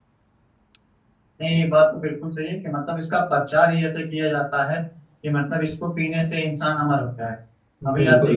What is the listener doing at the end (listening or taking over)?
listening